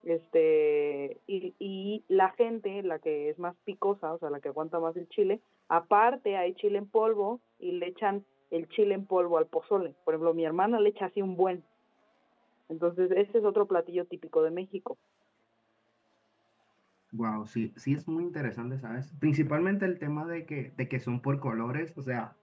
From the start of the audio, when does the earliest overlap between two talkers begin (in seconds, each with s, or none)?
none